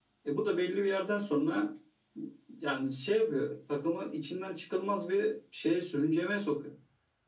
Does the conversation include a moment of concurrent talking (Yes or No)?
No